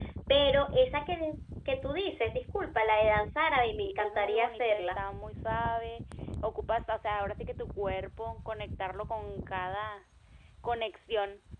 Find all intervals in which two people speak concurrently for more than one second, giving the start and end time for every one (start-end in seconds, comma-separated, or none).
3.6-5.0